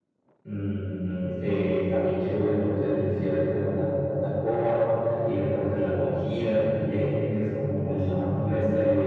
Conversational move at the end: listening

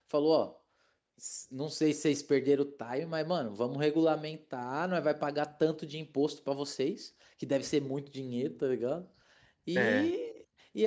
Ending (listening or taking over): listening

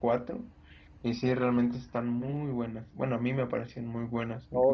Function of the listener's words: taking over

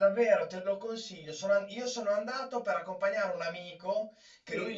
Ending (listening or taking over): listening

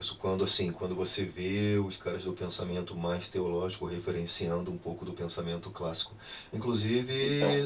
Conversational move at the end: listening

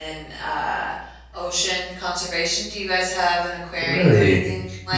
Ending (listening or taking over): taking over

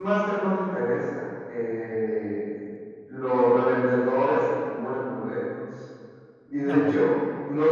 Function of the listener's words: listening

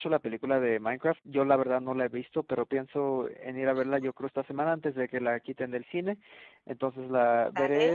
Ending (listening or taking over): listening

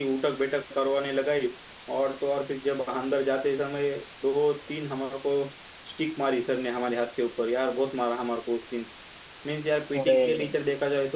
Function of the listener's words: listening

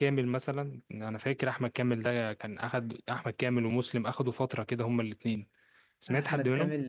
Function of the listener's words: taking over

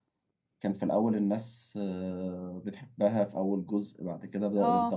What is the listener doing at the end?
listening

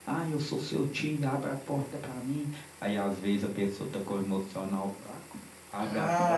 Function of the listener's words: taking over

